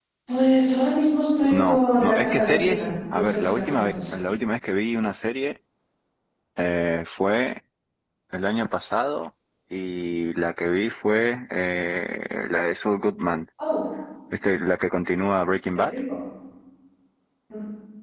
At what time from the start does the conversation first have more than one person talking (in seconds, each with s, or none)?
1.5 s